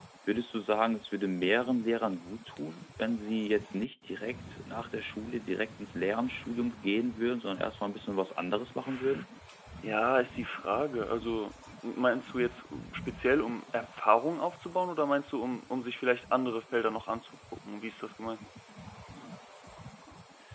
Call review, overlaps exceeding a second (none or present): none